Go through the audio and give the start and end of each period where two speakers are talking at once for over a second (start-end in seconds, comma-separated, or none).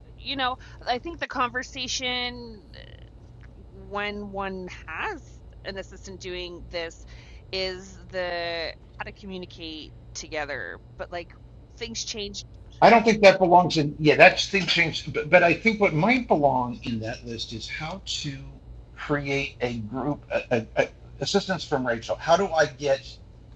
none